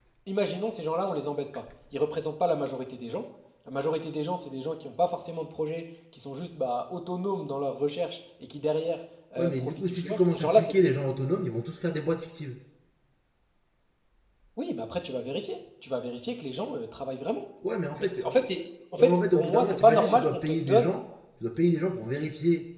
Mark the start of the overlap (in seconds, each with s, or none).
9.4 s